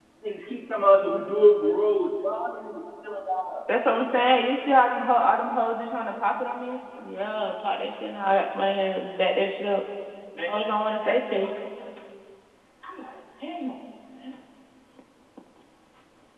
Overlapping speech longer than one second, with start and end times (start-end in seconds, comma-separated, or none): none